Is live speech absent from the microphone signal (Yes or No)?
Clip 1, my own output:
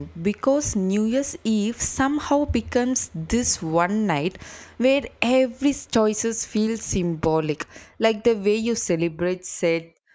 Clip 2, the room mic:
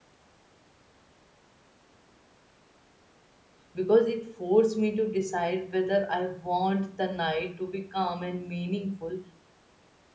No